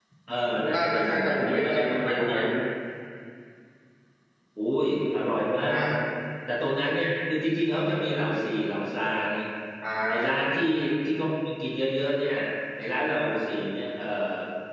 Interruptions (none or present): present